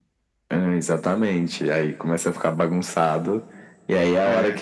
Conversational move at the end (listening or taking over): listening